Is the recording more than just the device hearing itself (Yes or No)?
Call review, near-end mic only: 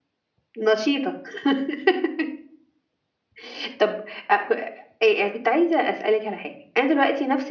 No